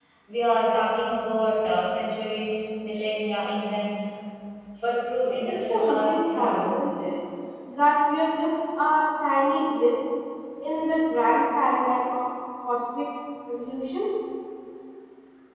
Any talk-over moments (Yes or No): Yes